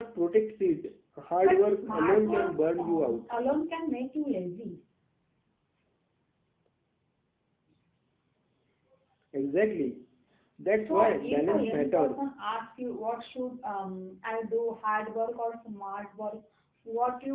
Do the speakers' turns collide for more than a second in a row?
Yes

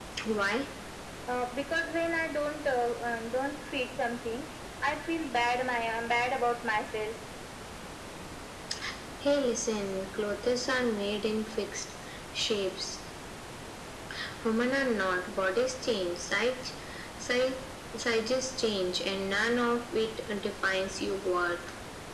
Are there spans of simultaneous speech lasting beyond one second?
No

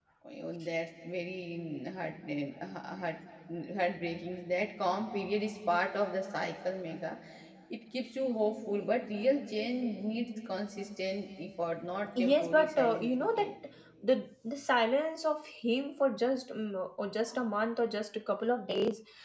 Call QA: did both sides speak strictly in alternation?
No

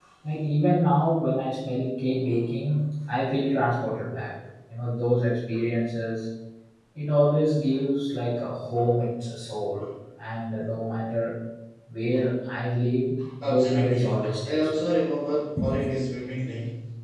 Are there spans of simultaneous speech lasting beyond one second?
Yes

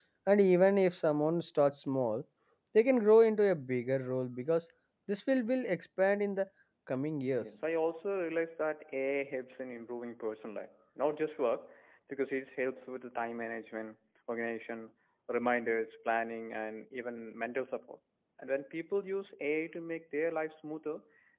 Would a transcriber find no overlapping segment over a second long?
Yes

